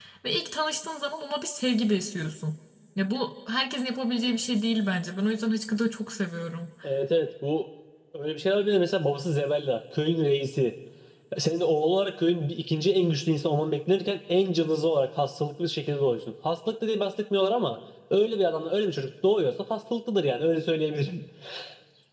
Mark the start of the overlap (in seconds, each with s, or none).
none